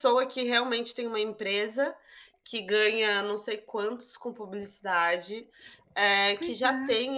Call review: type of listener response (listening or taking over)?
listening